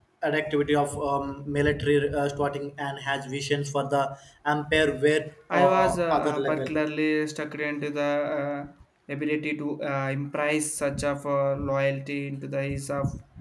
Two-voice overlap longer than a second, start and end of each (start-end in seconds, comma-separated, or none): 5.5-6.7